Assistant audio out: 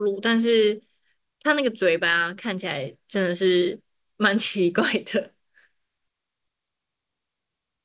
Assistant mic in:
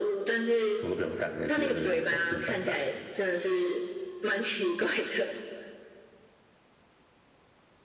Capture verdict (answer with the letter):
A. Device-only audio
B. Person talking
B